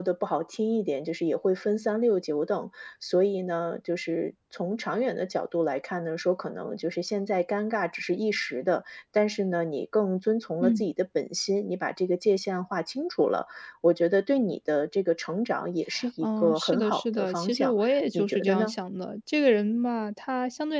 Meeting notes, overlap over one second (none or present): present